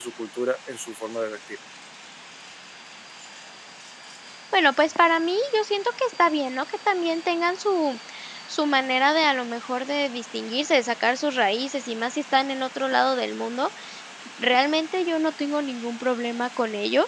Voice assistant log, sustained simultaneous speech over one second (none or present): none